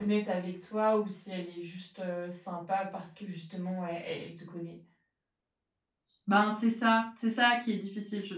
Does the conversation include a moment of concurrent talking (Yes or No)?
No